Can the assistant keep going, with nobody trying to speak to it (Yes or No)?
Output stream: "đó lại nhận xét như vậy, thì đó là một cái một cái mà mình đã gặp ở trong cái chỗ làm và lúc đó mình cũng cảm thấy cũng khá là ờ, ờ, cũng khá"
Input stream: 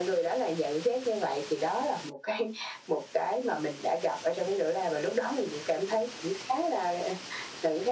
Yes